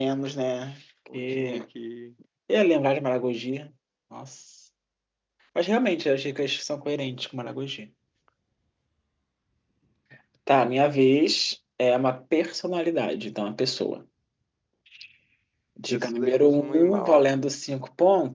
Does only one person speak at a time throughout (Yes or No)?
No